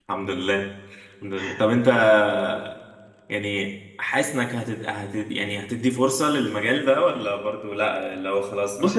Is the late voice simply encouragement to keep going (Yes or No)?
No